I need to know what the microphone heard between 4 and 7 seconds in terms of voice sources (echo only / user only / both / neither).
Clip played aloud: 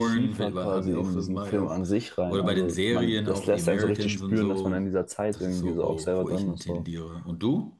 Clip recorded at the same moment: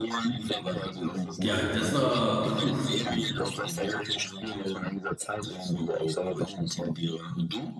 echo only